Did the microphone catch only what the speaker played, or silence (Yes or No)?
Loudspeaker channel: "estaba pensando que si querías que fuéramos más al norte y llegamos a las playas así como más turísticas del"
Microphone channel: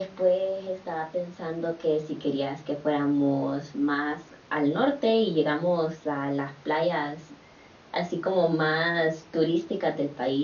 Yes